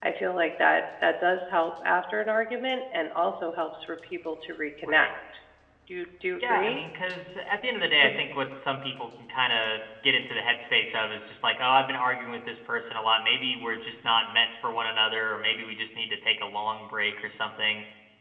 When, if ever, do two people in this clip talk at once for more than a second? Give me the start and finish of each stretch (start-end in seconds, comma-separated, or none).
none